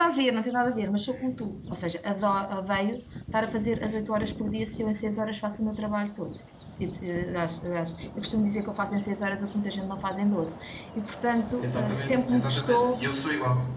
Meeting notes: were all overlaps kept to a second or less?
No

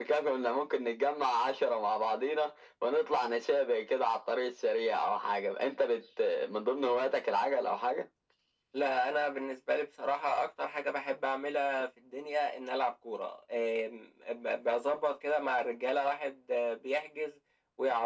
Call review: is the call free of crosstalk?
Yes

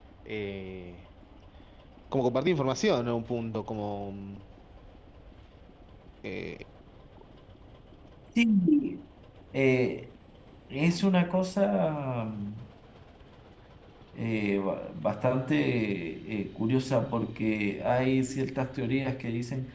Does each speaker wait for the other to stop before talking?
Yes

